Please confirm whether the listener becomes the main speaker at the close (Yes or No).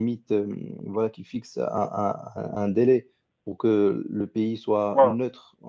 No